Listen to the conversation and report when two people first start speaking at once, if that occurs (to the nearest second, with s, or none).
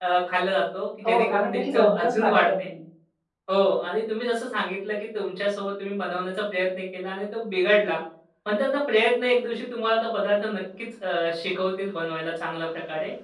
1 s